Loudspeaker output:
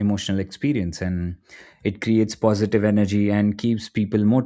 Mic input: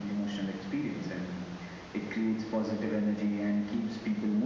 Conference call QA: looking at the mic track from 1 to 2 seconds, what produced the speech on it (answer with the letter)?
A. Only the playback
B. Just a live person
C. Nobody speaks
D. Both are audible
A